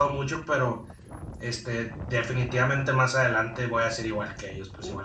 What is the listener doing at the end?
taking over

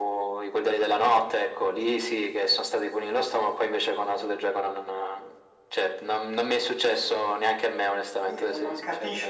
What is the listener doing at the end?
taking over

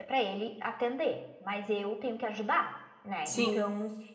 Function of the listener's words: listening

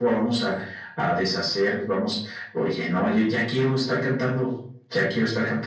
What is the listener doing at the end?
taking over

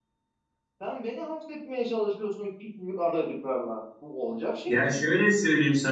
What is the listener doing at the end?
taking over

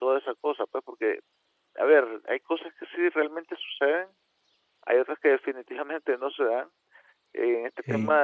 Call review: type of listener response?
listening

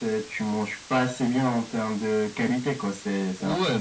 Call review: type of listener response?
taking over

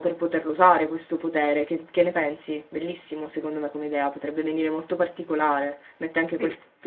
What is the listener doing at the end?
listening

